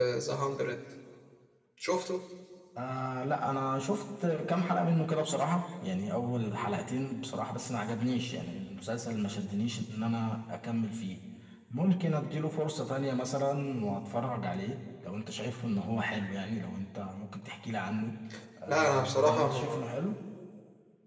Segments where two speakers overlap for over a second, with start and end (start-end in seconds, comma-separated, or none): 18.7-19.9